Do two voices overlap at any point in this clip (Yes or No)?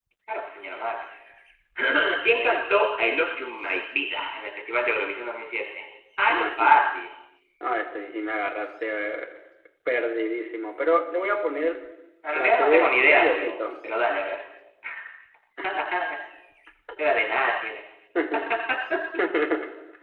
Yes